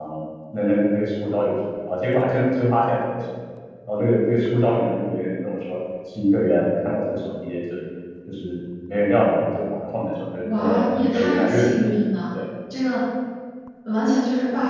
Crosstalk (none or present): present